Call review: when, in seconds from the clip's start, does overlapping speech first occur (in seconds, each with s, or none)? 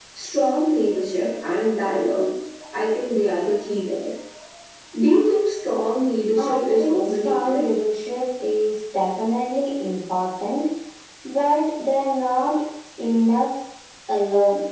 6.4 s